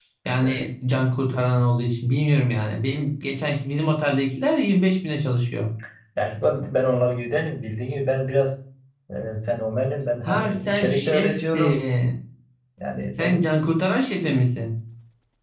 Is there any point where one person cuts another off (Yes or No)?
Yes